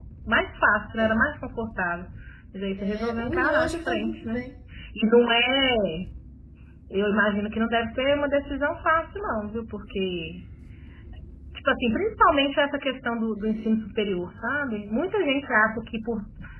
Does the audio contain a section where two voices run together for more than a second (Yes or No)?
Yes